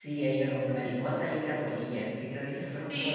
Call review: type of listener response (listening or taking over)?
taking over